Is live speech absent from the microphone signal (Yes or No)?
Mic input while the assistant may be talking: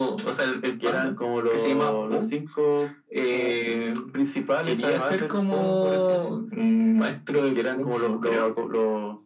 Yes